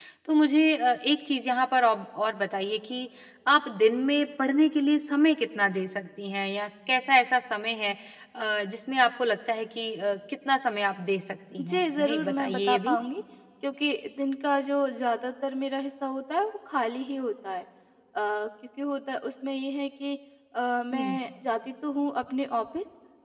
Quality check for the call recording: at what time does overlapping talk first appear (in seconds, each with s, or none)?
11.6 s